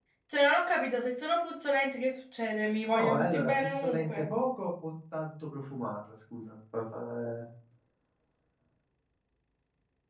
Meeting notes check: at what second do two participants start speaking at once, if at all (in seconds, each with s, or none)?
3.0 s